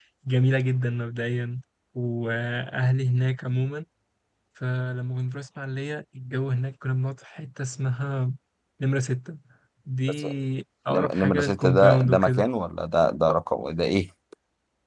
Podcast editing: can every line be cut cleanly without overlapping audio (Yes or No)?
No